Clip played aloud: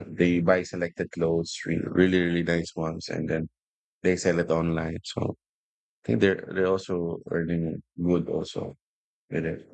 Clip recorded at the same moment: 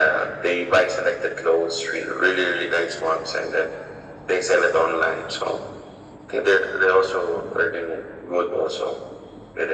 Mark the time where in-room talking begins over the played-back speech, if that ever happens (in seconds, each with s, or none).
none